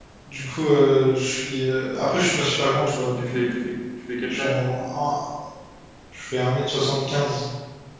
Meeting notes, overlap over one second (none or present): none